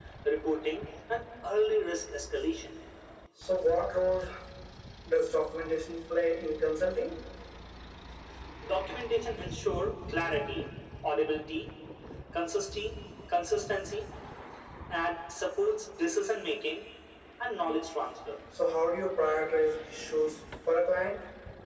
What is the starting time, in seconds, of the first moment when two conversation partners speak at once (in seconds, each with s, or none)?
none